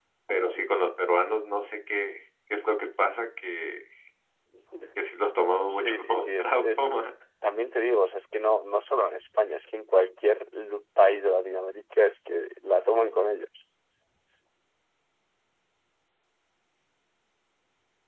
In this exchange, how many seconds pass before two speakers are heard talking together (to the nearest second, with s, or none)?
6 s